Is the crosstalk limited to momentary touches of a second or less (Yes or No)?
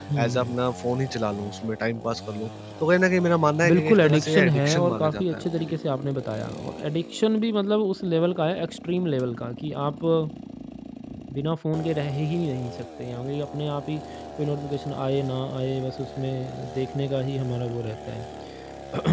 No